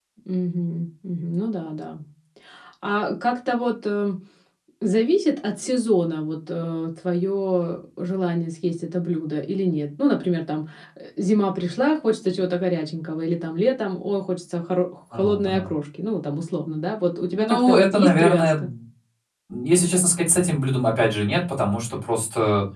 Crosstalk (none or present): present